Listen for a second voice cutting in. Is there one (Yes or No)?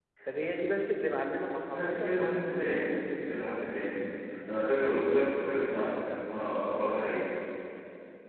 Yes